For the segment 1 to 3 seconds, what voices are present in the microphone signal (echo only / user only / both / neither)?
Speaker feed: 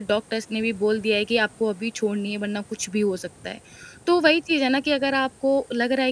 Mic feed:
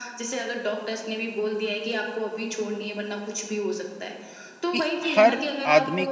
echo only